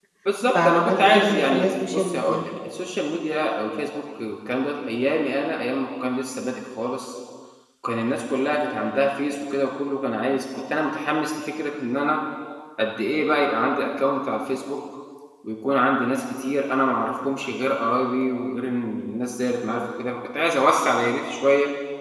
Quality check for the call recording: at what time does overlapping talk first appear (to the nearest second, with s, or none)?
1 s